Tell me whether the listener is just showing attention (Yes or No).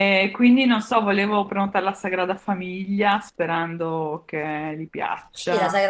No